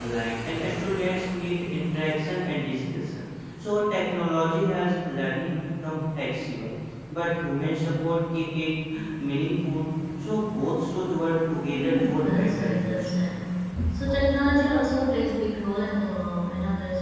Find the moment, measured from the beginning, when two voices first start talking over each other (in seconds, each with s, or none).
11.7 s